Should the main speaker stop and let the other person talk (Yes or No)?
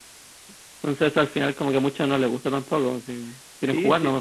Yes